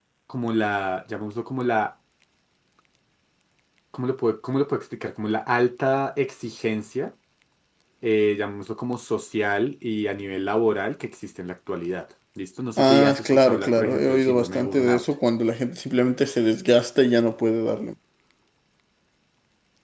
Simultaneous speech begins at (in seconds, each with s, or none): 12.8 s